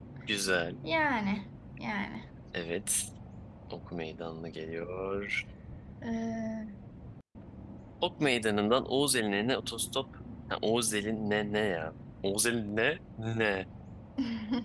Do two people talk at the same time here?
No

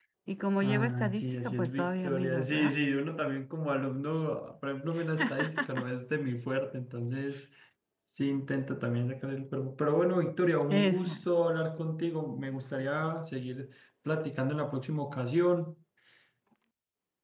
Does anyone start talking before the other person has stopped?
Yes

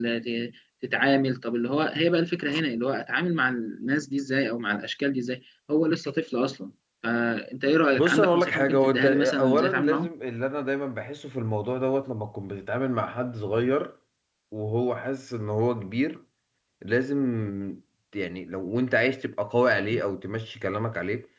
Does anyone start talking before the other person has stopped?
Yes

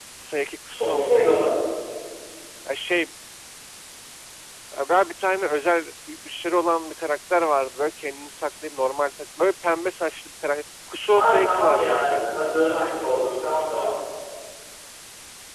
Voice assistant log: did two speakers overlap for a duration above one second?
Yes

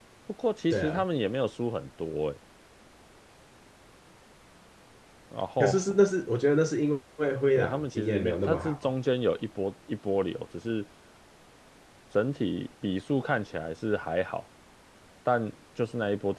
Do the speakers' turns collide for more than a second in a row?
Yes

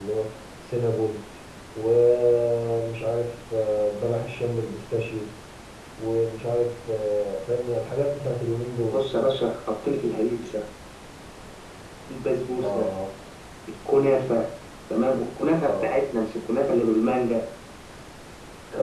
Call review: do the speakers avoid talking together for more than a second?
Yes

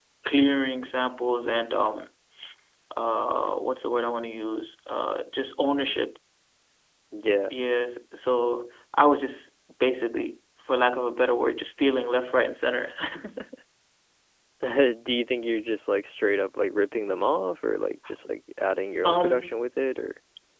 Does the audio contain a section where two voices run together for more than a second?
No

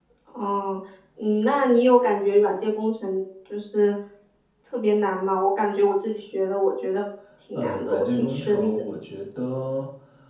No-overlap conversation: No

